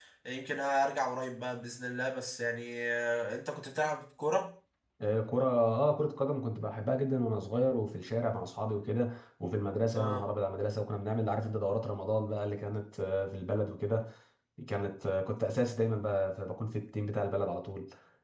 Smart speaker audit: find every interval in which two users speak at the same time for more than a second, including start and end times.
none

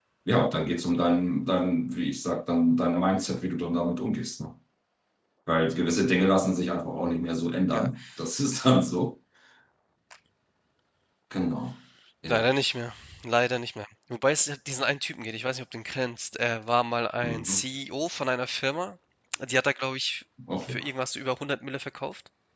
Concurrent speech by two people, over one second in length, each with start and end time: none

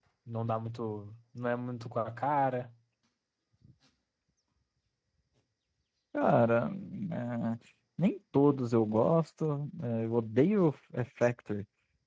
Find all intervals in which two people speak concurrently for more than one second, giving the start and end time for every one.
none

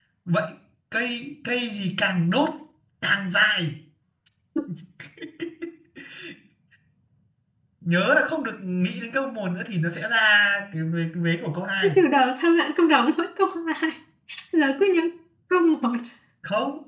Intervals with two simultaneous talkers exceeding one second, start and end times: none

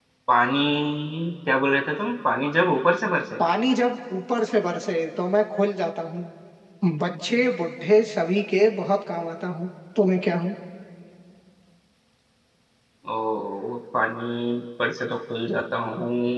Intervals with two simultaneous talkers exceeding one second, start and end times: none

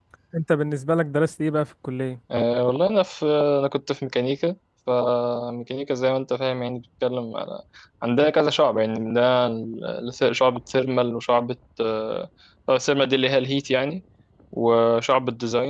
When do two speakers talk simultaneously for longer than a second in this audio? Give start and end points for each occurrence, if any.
none

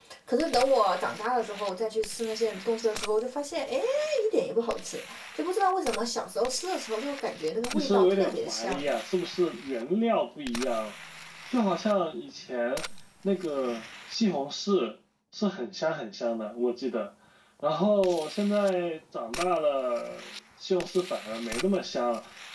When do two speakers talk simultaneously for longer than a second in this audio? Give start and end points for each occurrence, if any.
7.7-8.9

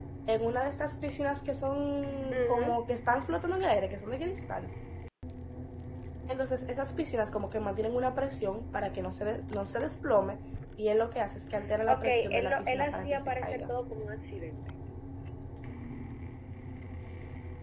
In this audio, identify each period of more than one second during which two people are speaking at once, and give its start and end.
11.9-13.7

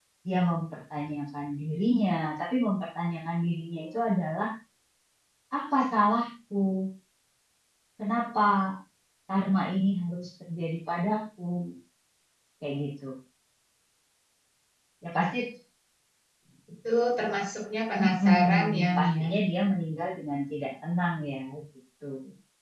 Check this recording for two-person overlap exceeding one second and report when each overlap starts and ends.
18.0-19.3

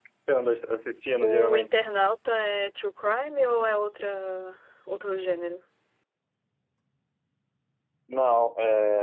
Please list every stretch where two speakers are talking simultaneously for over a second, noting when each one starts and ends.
none

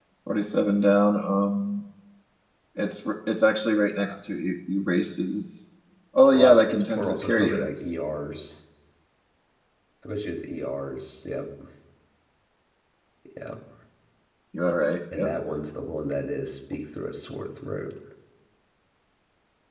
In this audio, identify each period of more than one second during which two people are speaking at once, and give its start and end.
6.3-7.9

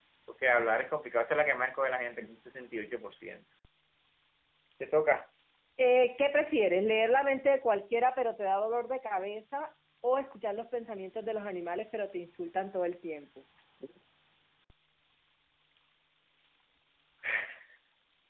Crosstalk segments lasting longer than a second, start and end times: none

